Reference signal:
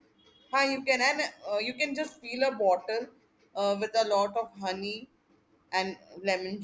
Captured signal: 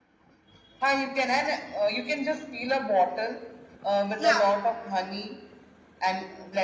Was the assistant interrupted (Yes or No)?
Yes